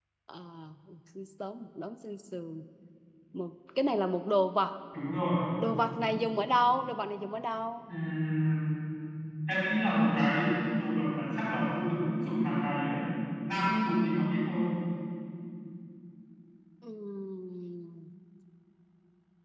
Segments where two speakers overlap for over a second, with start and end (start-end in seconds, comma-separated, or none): none